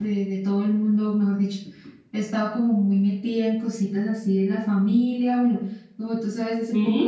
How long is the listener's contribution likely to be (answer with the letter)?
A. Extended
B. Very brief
B